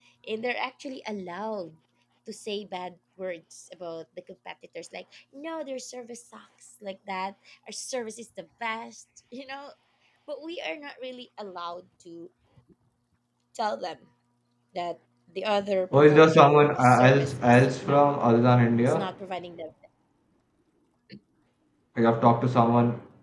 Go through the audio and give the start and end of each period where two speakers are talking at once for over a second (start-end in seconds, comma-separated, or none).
16.0-18.2